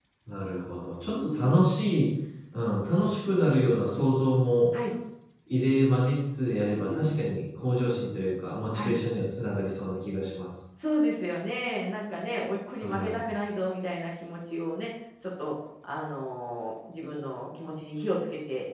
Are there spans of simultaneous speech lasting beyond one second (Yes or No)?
No